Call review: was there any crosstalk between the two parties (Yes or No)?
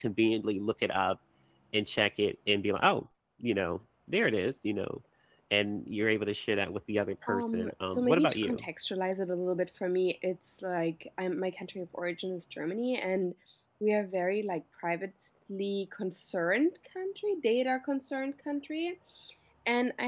Yes